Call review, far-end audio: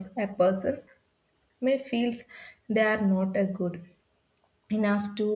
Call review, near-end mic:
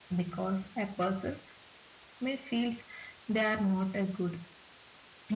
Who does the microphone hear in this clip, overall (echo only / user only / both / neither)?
echo only